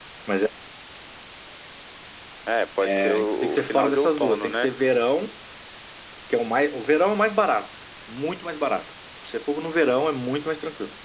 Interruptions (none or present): present